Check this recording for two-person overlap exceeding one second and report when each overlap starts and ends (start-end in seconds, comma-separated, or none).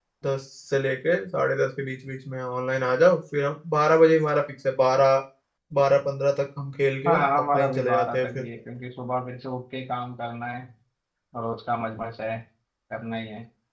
7.1-8.5